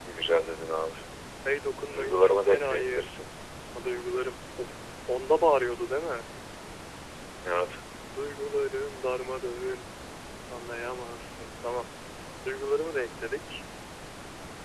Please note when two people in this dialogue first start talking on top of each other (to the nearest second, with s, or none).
2 s